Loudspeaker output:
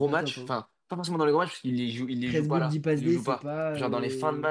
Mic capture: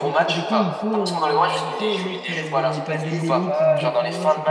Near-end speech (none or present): present